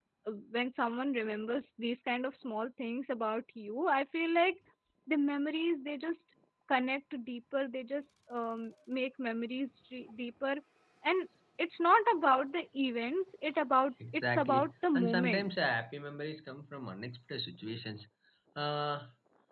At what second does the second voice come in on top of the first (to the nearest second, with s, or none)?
14 s